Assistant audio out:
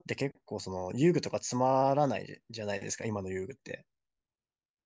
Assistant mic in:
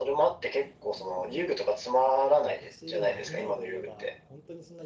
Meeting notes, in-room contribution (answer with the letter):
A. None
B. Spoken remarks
B